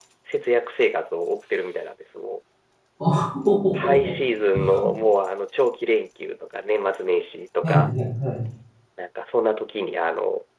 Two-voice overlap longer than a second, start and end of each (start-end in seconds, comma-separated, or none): none